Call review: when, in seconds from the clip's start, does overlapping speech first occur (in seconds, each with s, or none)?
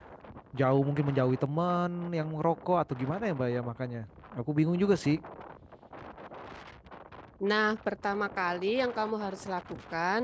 none